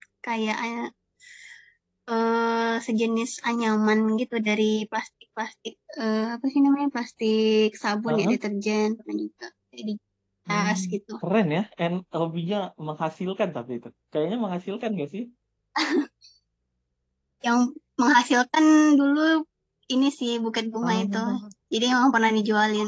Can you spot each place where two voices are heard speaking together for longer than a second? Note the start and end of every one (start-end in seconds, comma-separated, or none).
none